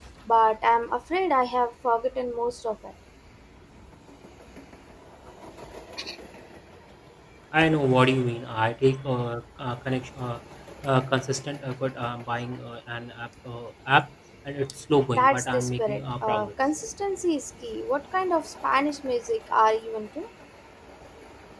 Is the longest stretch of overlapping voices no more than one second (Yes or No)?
No